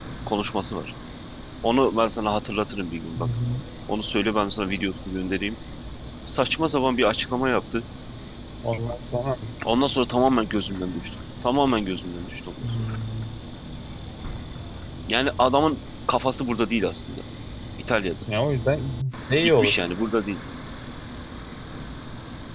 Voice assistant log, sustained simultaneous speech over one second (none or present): none